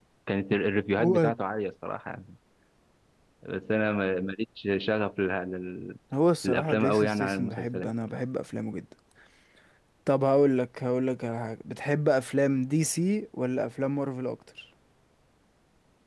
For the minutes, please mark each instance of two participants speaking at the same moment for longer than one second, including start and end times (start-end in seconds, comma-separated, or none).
6.4-7.9